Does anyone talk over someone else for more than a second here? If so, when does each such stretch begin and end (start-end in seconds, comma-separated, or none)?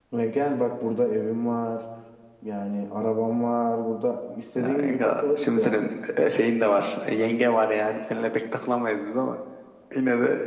4.6-5.8